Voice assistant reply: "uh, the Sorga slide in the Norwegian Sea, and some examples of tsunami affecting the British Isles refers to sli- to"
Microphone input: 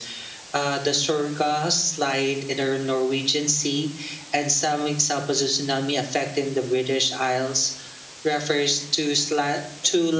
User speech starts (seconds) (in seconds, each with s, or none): none